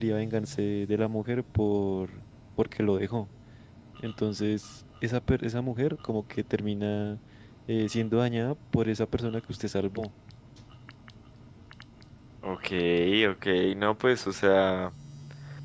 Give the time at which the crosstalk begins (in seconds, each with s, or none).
none